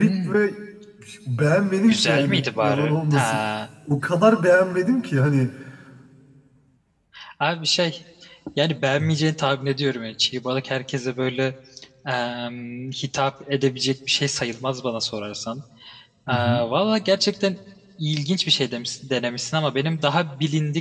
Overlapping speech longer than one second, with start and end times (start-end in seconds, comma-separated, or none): 1.9-3.4